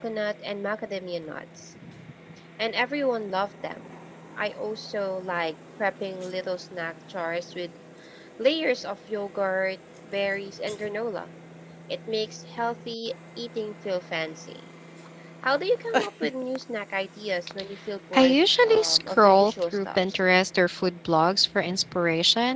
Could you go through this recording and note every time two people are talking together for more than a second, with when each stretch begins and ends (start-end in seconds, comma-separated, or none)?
18.1-20.2